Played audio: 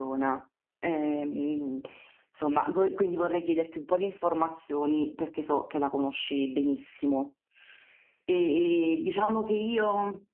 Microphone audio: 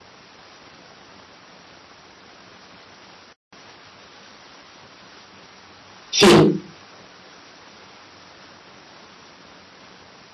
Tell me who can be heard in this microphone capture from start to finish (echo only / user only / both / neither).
user only